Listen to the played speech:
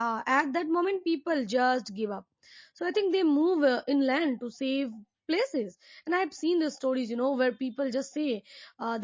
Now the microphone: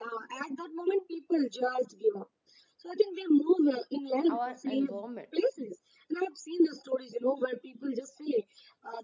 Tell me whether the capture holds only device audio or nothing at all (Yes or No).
No